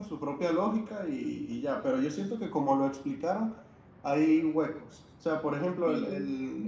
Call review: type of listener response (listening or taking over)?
listening